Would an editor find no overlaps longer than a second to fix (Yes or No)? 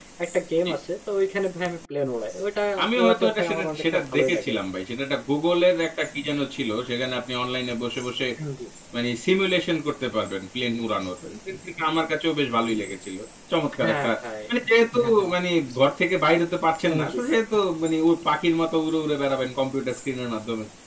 No